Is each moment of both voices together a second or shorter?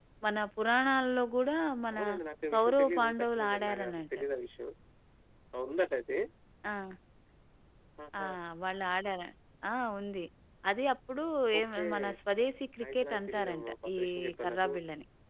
No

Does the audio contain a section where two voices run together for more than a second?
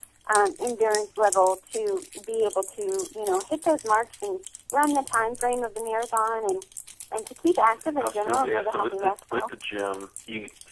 Yes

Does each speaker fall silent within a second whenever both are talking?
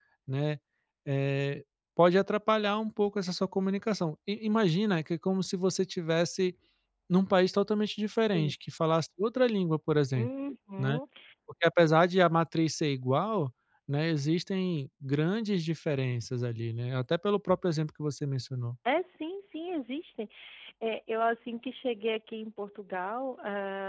Yes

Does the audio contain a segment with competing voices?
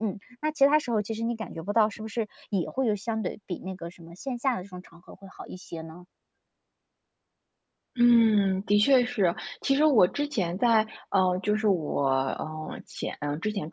No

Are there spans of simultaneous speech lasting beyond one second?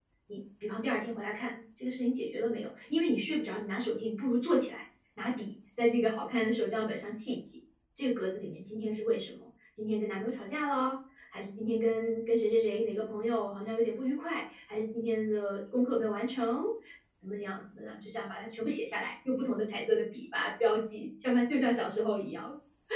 No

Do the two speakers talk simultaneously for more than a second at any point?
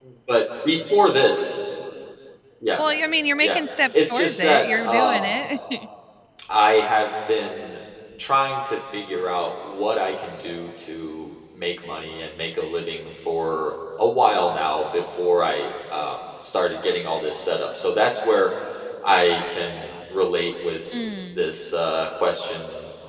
Yes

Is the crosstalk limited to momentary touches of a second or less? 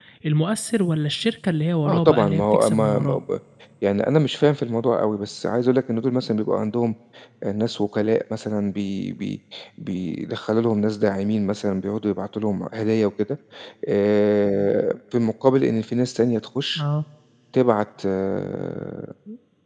No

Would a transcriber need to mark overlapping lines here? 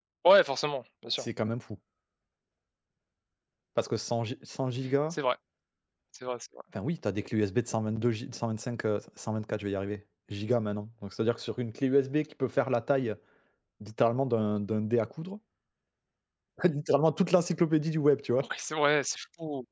No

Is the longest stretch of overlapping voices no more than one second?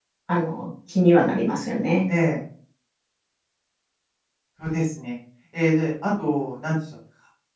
Yes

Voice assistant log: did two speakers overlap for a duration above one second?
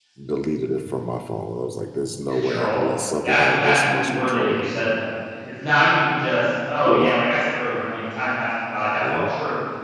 Yes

